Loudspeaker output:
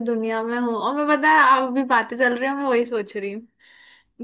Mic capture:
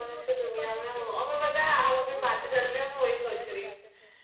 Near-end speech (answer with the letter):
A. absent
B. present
B